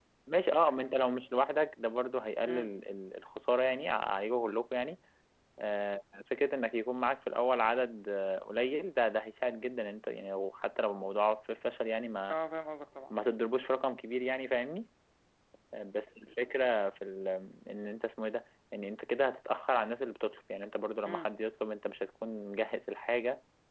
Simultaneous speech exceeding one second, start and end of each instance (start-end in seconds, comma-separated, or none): none